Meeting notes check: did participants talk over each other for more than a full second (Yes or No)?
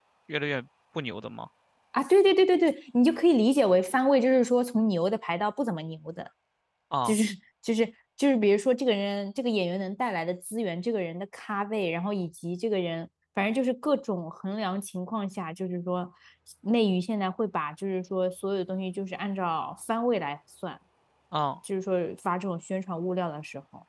No